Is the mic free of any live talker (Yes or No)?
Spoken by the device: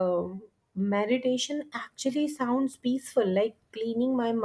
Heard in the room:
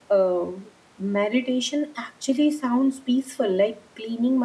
Yes